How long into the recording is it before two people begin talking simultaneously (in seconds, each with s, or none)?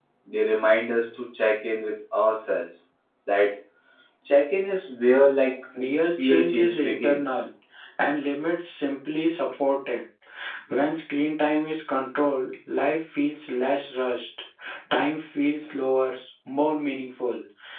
6.2 s